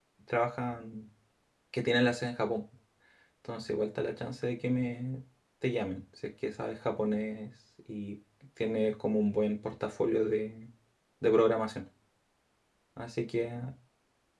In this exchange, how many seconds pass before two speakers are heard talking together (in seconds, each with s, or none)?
none